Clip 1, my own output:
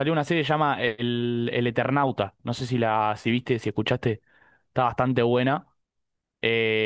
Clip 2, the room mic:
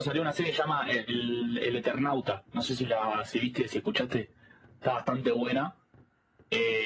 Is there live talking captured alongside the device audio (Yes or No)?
No